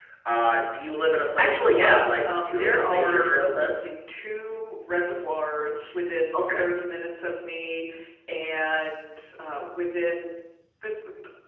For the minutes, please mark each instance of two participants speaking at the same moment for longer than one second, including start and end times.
1.4-3.7

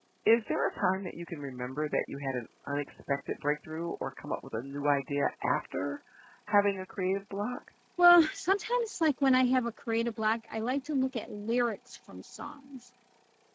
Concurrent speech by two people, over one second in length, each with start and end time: none

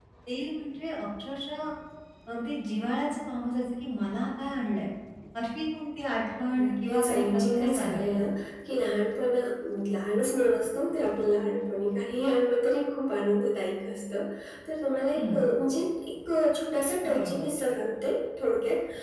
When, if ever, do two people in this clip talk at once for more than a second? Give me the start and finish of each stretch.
6.6-8.2

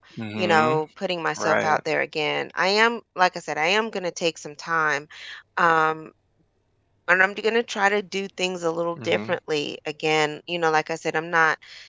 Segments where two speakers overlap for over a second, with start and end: none

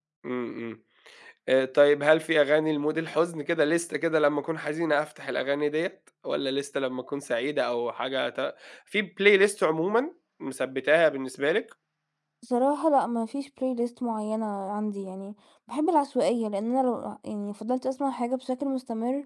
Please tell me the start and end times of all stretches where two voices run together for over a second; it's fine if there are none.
none

